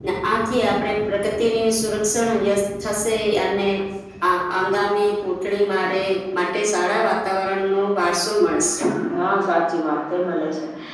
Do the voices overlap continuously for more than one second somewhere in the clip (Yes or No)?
No